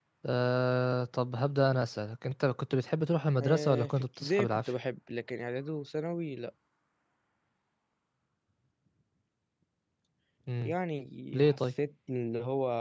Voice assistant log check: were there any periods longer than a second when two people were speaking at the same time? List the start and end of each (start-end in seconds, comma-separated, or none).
3.4-4.7